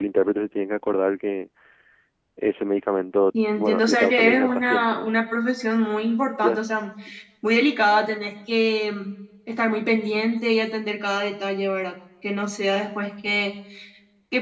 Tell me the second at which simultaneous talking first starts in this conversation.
3.5 s

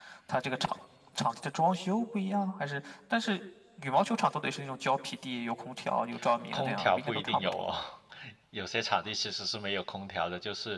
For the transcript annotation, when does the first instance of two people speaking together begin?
6.5 s

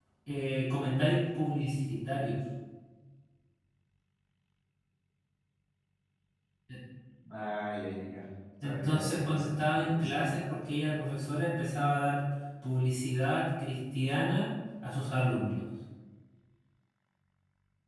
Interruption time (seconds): 8.6 s

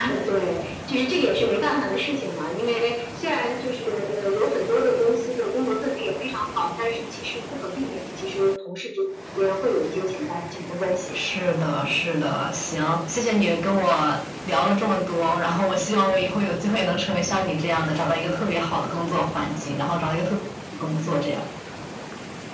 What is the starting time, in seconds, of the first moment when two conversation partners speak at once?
none

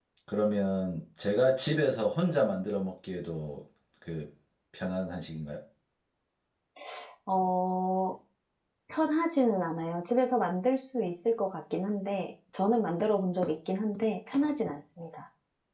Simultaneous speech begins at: none

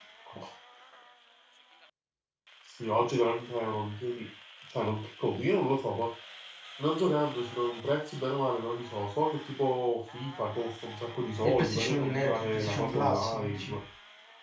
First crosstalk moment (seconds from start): 11.4 s

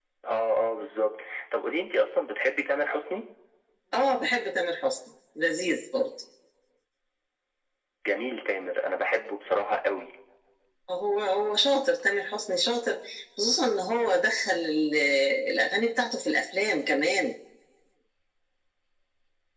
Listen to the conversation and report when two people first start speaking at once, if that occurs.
none

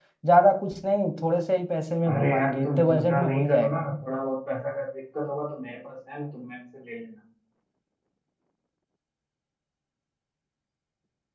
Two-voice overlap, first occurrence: 2.0 s

